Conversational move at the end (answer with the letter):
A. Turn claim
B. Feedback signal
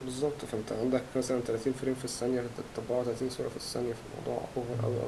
A